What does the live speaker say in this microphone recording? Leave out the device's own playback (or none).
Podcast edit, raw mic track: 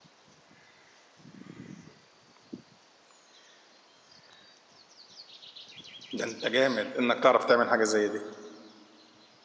ده انت جامد انك تعرف تعمل حاجه زي دي